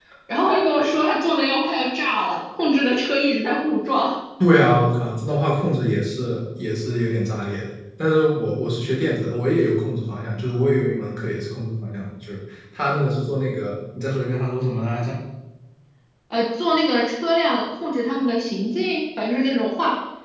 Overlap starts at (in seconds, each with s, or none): none